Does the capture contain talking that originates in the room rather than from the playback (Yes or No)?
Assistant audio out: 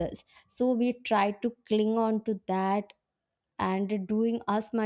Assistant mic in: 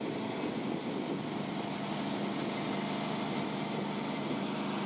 No